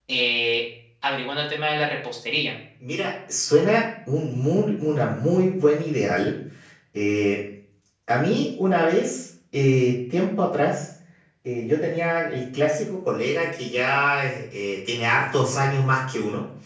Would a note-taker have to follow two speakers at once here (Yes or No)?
No